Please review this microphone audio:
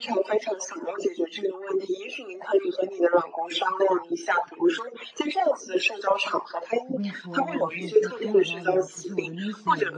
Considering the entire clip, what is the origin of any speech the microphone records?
both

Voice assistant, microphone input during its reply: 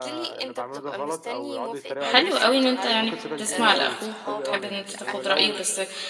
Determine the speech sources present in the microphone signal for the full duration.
both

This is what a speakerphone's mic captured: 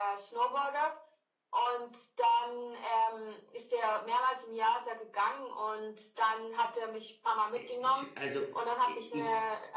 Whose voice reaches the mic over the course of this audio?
both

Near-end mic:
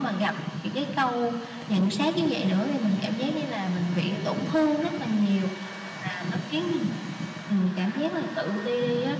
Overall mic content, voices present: echo only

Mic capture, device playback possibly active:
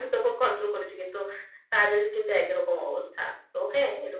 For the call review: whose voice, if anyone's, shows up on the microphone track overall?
echo only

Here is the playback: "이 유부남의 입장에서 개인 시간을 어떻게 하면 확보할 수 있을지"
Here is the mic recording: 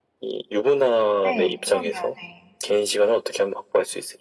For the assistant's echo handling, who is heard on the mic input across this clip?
both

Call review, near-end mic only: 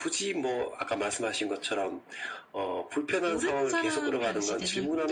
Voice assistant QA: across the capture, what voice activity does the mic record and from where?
both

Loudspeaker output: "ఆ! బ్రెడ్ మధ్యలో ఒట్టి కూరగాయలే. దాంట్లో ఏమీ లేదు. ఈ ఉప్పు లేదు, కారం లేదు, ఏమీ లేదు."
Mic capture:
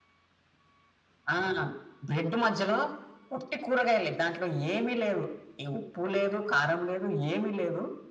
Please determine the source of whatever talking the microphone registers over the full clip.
echo only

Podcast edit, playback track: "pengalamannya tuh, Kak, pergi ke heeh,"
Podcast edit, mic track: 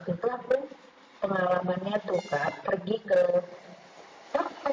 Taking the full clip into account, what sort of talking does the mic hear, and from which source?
echo only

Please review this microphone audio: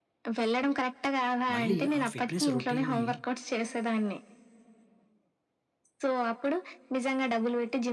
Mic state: both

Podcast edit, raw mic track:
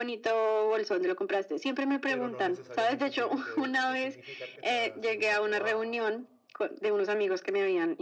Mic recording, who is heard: both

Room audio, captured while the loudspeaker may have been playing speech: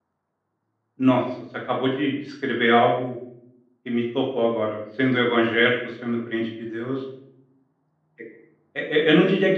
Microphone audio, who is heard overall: user only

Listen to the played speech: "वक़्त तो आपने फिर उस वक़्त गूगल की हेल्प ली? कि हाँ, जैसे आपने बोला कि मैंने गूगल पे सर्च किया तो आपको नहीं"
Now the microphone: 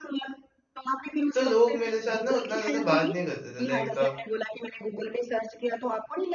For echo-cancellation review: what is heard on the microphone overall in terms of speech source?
both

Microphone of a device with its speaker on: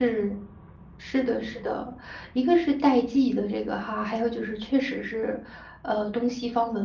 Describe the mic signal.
user only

